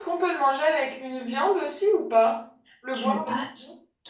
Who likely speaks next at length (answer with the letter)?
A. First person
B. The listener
B